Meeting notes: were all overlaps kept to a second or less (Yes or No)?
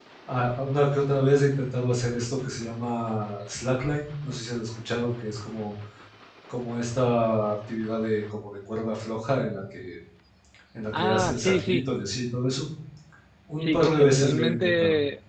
No